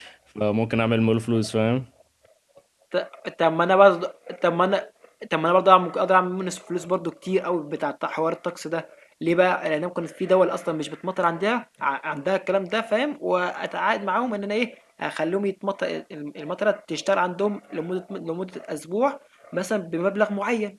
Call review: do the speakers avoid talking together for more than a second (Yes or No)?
Yes